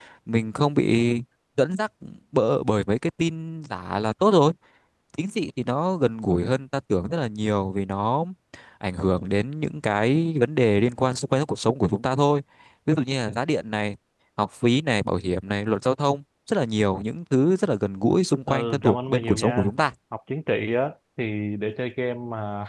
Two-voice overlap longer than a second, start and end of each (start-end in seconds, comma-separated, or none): 18.5-19.7